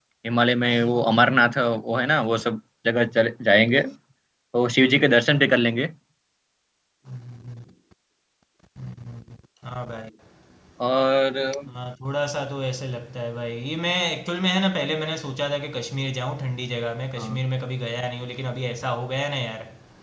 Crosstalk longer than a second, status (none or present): none